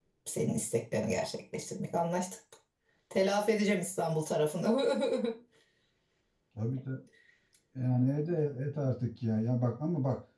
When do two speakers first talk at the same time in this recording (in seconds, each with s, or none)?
none